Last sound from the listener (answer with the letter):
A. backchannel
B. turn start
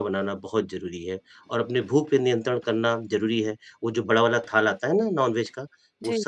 A